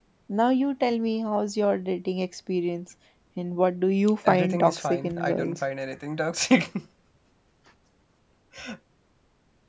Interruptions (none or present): present